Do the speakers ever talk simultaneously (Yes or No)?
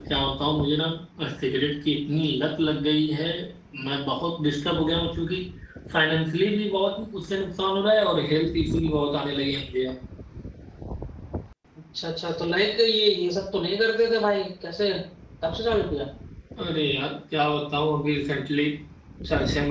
No